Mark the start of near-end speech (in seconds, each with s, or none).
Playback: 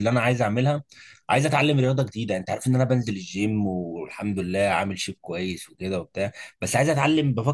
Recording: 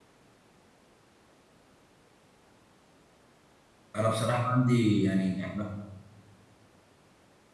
4.0 s